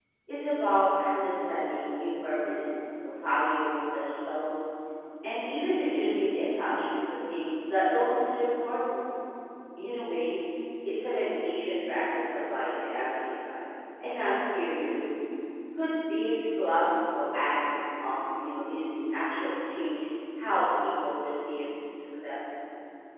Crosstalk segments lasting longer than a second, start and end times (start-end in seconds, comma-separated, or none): none